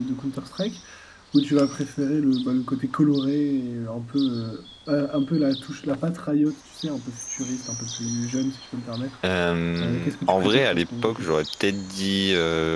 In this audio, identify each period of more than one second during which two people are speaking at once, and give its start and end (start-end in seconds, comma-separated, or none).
9.8-11.3